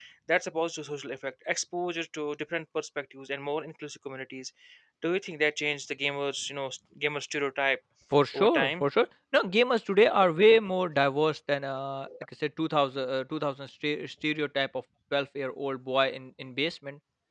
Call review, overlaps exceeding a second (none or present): none